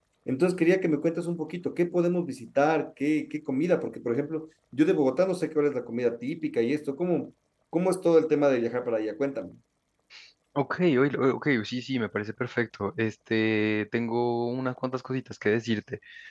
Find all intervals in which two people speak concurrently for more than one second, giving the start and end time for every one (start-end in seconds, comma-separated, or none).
none